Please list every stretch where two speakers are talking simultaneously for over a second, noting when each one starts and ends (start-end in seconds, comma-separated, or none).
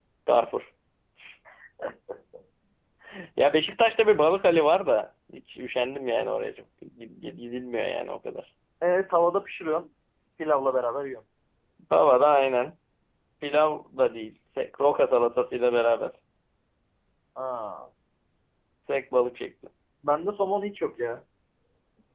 none